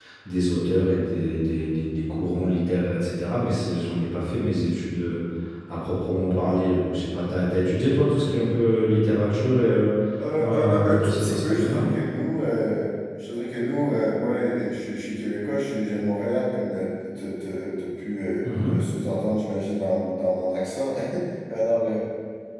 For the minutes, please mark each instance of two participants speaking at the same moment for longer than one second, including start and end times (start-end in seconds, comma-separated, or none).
10.4-11.9